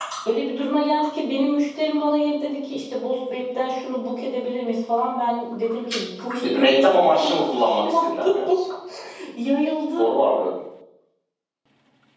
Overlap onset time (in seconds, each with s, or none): 6.6 s